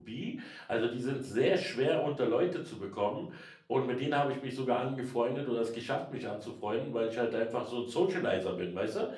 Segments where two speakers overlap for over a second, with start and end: none

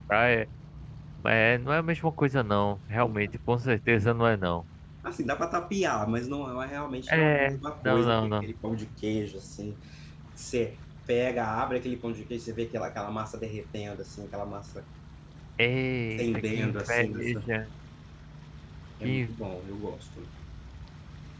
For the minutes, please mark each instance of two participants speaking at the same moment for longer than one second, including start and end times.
7.1-8.5, 16.2-17.4

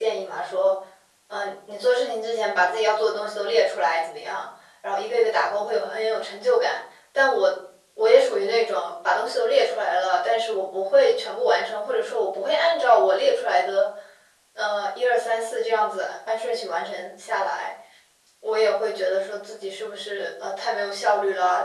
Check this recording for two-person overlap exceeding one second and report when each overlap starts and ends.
none

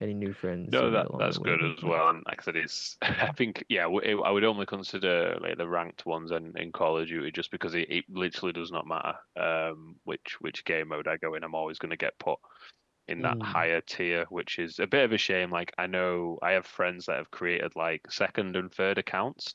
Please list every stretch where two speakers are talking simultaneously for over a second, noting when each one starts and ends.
0.7-2.0

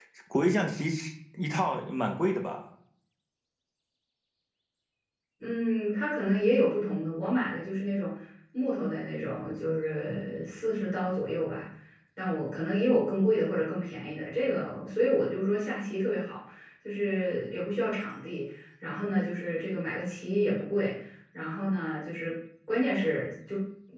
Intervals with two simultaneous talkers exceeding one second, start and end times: none

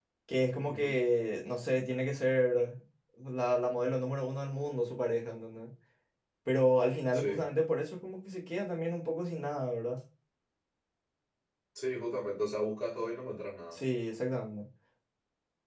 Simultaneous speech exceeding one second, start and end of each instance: none

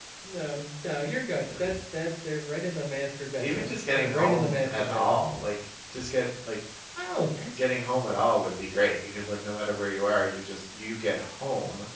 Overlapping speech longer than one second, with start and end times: 3.4-5.3

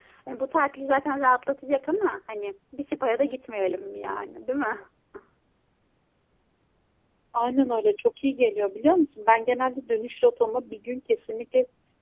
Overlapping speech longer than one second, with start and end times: none

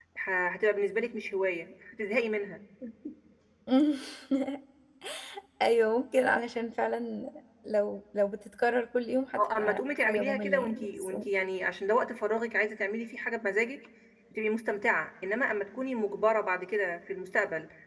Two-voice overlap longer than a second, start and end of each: 9.4-11.1

